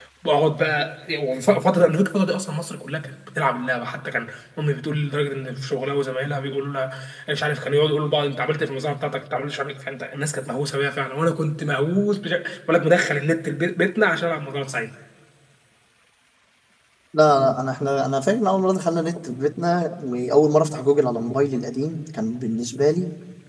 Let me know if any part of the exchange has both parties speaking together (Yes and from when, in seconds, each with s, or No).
No